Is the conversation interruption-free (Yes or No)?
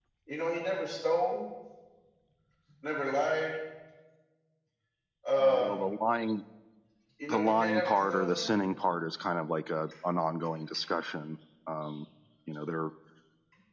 No